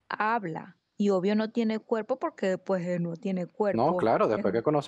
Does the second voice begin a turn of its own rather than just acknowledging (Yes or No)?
Yes